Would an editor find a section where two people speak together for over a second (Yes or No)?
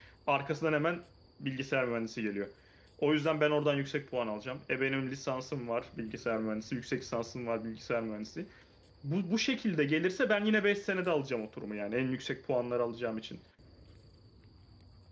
No